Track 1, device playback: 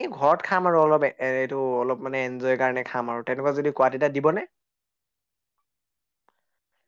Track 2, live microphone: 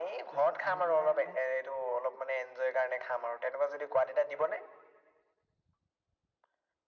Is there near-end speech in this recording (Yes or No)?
Yes